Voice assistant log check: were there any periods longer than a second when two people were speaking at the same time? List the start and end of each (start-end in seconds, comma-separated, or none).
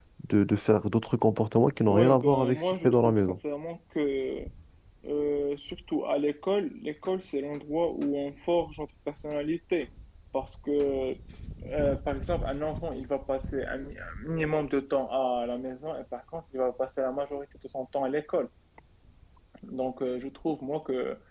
1.9-3.4